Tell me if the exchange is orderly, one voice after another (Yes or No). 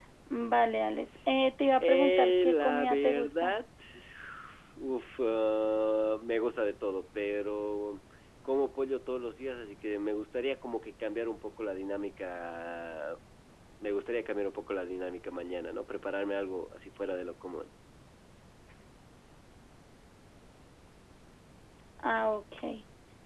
No